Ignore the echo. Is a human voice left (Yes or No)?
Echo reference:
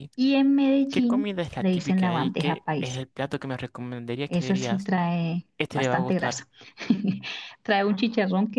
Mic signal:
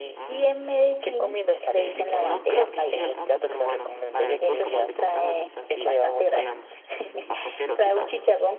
Yes